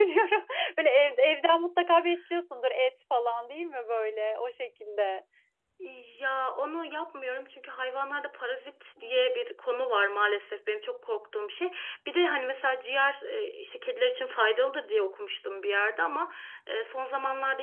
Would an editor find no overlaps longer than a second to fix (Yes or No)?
Yes